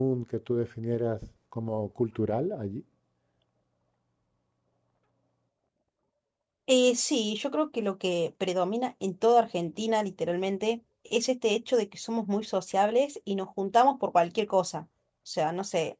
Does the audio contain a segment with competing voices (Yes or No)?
No